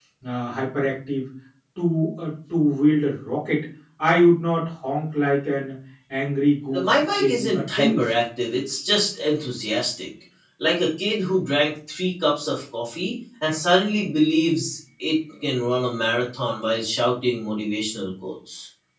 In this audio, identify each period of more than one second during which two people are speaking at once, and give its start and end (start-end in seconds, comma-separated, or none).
6.7-8.1